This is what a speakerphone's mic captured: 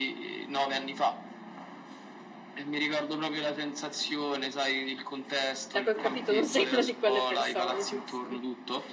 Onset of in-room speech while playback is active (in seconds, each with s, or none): 5.6 s